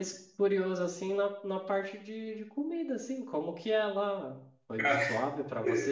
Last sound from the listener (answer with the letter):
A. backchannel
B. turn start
A